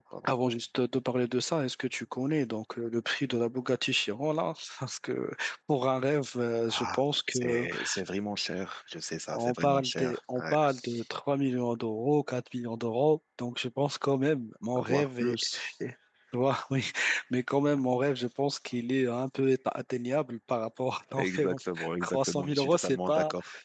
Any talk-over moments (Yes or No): Yes